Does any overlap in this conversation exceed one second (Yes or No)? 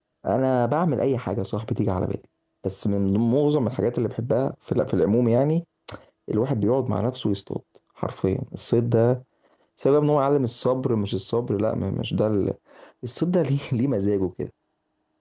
No